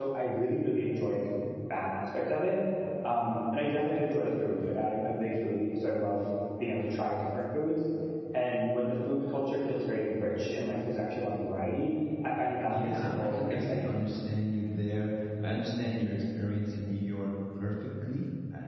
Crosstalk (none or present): present